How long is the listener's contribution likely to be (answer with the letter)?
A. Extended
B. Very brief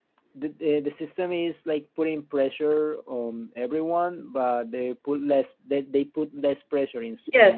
A